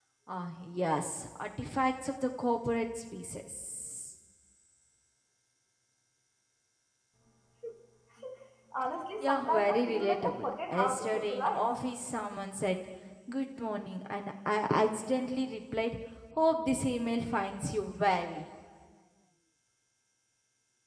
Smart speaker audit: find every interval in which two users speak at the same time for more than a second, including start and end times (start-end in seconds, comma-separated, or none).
9.2-11.7